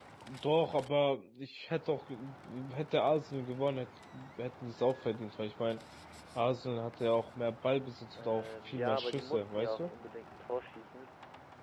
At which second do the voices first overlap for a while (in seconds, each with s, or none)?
8.2 s